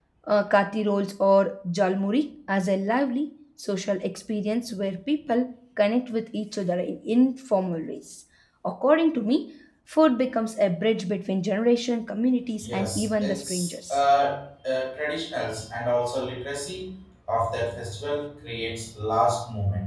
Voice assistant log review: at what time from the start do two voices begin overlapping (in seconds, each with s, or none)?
12.6 s